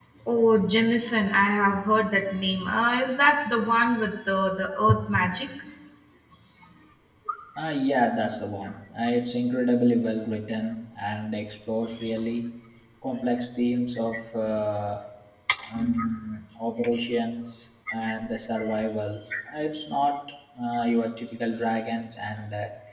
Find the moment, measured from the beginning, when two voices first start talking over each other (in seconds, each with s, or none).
none